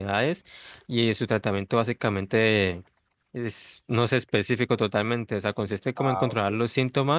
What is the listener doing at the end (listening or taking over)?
listening